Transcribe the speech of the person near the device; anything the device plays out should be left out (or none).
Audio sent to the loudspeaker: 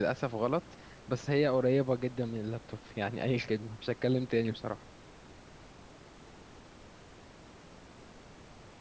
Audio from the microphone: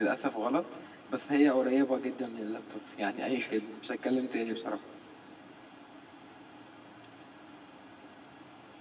none